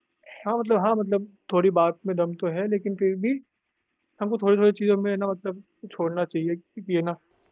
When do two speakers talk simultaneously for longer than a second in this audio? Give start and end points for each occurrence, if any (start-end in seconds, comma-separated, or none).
none